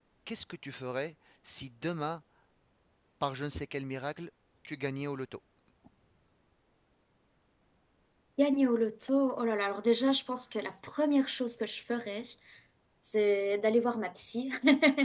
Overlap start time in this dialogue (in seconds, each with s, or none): none